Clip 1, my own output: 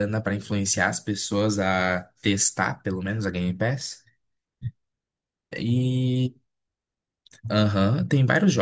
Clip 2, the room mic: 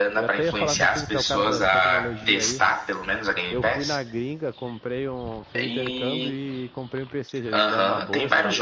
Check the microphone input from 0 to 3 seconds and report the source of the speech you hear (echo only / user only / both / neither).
both